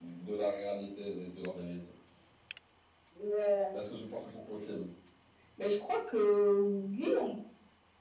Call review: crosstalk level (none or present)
none